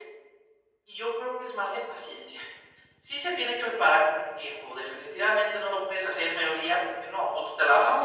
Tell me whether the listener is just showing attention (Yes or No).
No